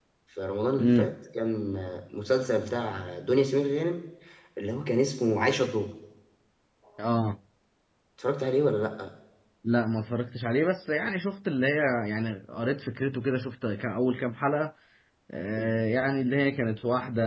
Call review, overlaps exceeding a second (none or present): none